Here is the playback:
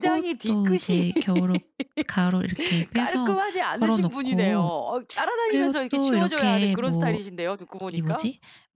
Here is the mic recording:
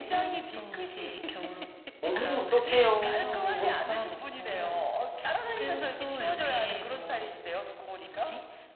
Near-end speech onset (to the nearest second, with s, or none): 2 s